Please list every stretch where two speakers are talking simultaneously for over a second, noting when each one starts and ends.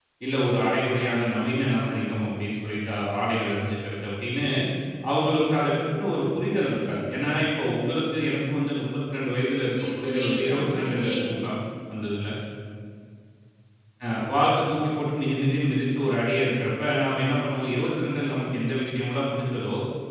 9.8-11.4

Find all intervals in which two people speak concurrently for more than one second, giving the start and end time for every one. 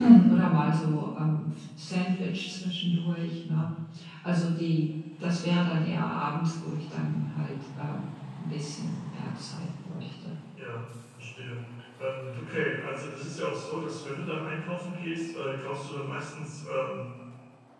none

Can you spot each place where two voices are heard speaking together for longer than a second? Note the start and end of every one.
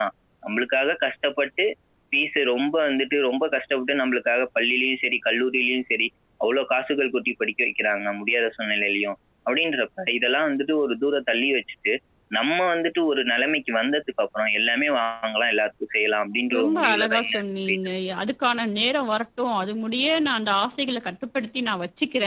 16.6-17.8

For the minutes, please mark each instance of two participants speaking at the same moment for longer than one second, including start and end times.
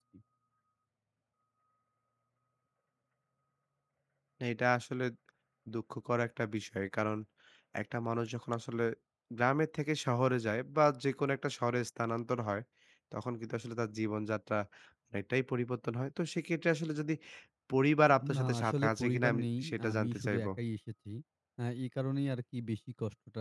18.3-20.5

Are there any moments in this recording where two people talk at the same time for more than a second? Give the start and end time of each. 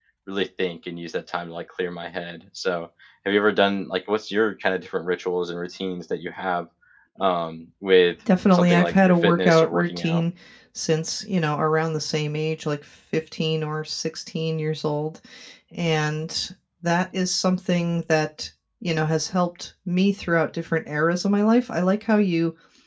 8.5-10.2

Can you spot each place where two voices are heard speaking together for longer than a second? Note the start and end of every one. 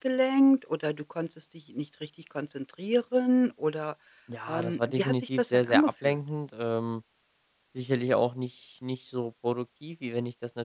4.5-6.2

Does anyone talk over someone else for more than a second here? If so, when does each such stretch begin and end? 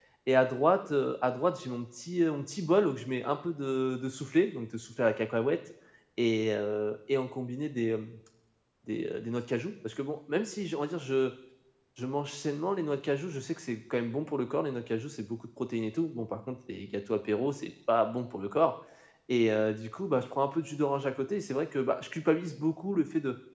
none

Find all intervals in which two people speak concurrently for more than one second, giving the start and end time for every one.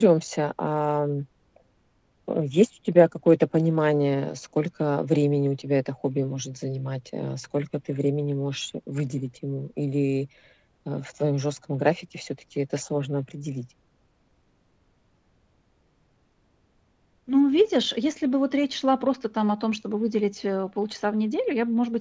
none

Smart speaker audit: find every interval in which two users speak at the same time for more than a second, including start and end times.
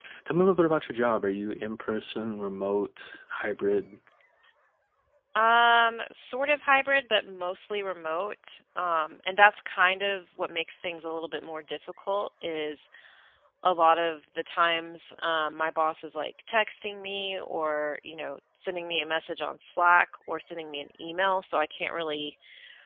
none

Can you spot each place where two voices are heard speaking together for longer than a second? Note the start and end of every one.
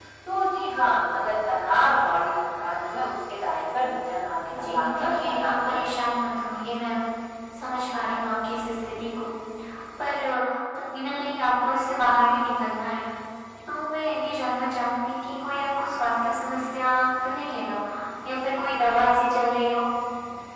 4.5-5.9

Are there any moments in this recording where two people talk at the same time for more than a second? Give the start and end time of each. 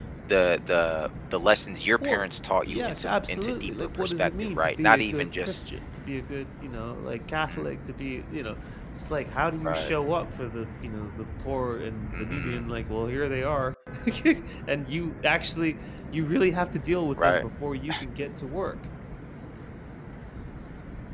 2.7-5.6

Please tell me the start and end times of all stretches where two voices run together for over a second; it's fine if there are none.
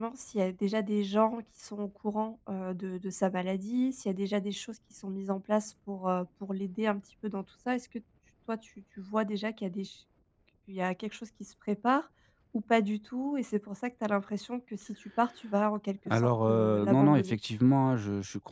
16.1-17.4

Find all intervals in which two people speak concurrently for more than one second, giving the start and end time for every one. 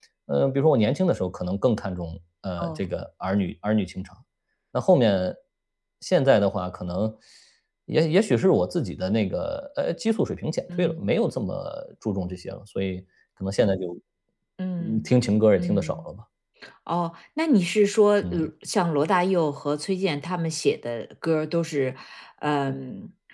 none

